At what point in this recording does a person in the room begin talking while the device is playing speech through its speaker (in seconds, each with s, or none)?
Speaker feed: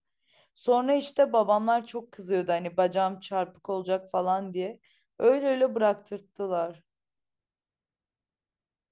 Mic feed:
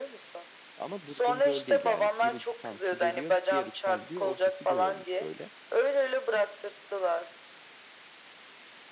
0.8 s